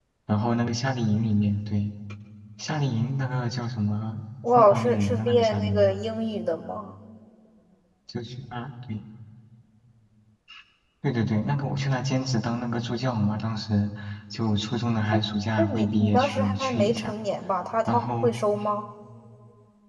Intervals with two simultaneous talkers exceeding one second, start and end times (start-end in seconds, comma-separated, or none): 4.6-5.9, 15.6-17.1